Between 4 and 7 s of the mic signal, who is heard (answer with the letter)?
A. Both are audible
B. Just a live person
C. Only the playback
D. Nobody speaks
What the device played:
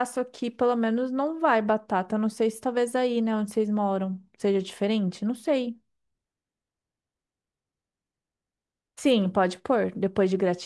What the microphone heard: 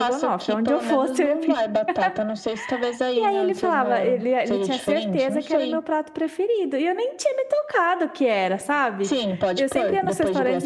A